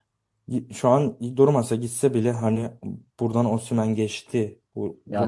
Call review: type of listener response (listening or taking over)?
taking over